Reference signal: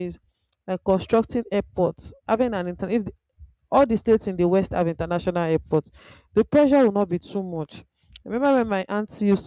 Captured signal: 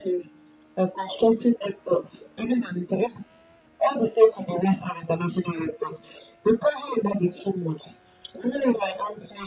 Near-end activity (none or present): none